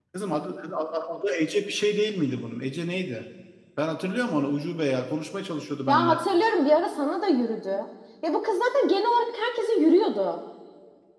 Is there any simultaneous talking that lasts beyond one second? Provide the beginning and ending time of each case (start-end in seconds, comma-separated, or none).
none